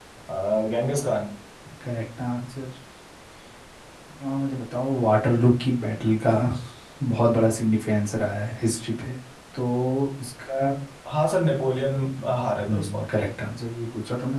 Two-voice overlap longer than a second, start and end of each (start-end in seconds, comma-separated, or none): none